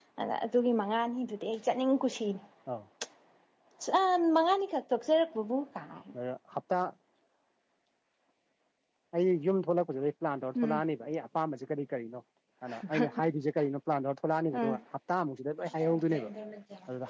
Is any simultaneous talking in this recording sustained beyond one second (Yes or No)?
No